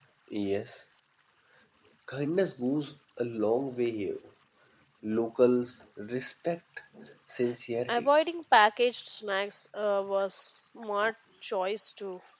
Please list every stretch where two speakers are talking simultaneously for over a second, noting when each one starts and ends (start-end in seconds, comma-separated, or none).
none